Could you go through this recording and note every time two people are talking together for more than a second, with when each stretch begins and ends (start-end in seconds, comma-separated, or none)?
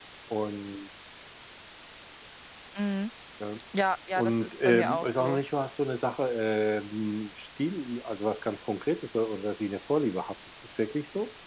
4.2-5.4